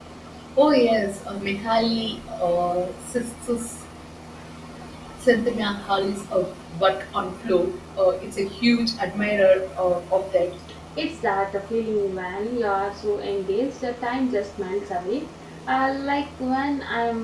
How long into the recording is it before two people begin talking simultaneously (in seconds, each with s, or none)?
none